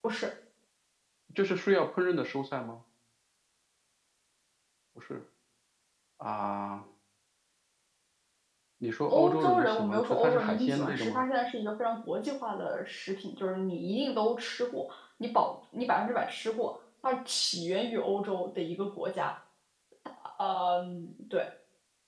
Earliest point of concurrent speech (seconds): 9 s

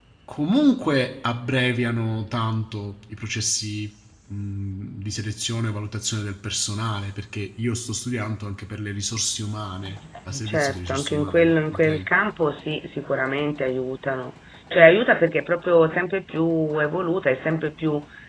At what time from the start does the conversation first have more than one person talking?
10 s

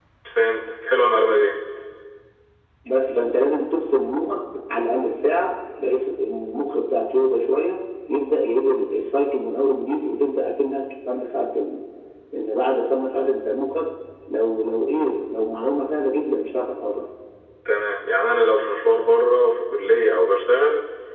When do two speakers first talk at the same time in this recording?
none

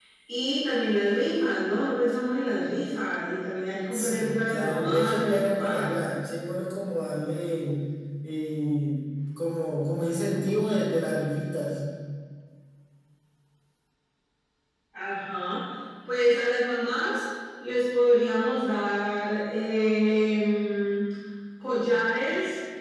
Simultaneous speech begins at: 4 s

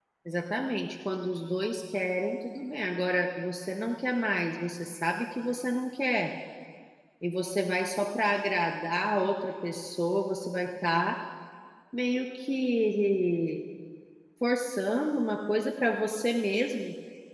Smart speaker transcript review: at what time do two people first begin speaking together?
none

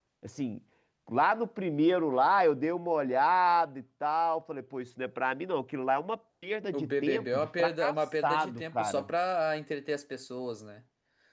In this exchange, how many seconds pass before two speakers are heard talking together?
7 s

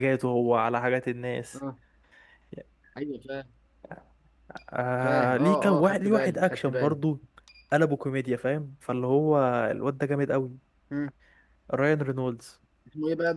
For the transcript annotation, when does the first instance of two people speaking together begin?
5 s

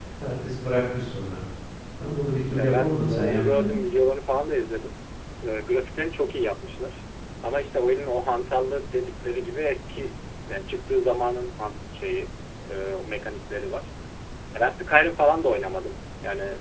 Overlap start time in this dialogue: 3 s

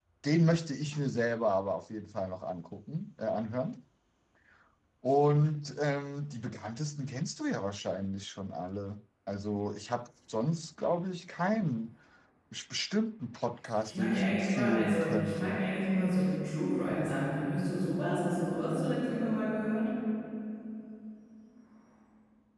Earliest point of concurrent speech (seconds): 14 s

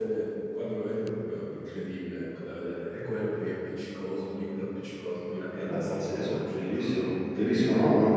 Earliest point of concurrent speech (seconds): 6 s

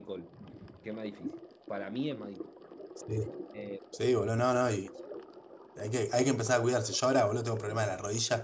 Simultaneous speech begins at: none

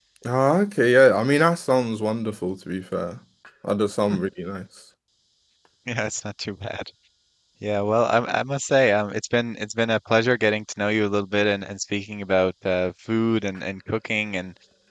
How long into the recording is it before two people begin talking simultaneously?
none

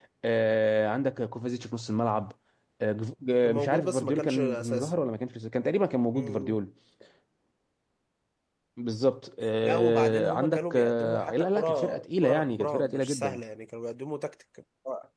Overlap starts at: 3 s

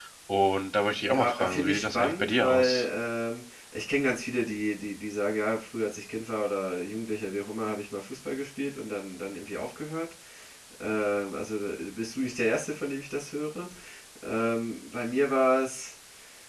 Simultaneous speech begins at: 1 s

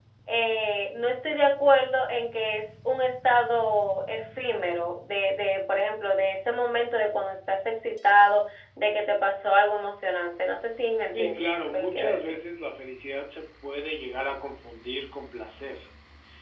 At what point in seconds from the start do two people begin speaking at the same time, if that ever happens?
11 s

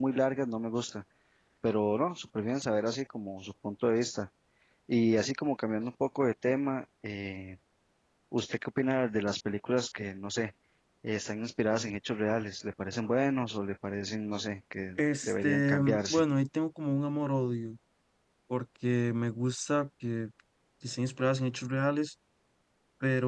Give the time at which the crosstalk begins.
15 s

